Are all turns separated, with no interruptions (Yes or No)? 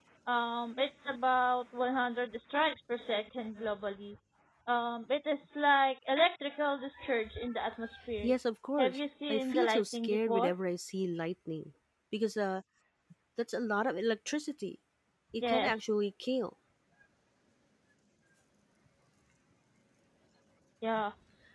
No